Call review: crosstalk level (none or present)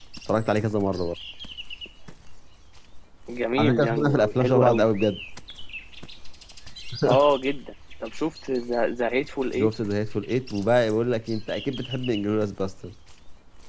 present